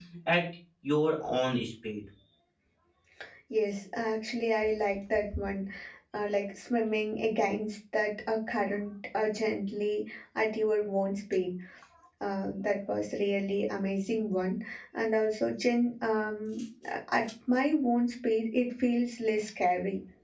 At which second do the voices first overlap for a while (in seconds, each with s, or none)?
none